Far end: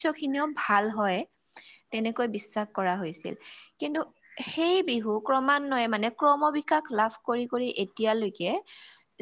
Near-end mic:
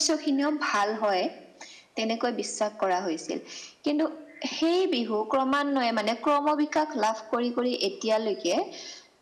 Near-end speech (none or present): none